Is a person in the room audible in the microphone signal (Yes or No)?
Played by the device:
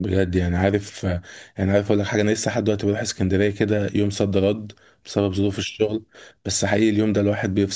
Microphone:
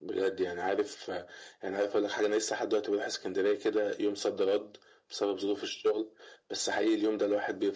No